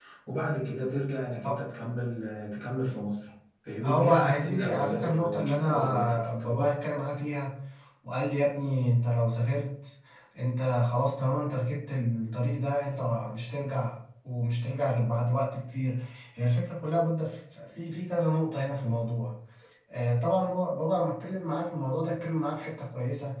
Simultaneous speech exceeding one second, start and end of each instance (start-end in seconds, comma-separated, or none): 3.8-6.6